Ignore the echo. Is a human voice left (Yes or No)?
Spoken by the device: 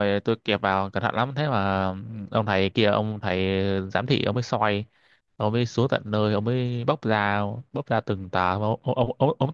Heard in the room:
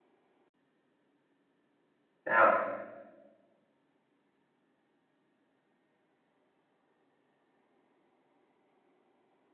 Yes